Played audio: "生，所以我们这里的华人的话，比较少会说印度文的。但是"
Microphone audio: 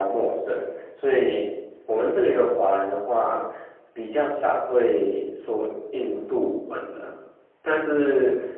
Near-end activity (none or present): none